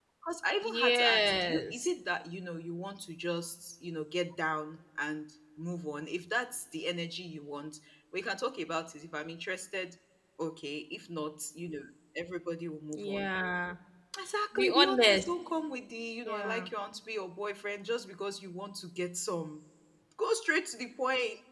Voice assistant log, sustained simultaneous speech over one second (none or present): present